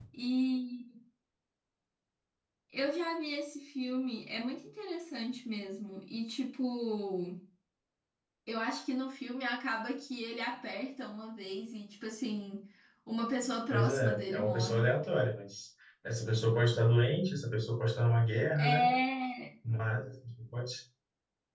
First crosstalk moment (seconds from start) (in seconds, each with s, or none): 13.7 s